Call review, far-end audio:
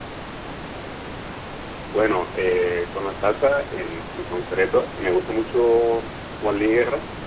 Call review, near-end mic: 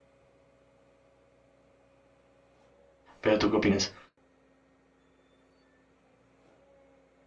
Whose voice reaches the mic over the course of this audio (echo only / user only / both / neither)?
user only